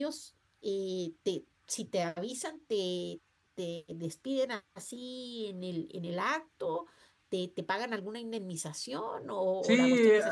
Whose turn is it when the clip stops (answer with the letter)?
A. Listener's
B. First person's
A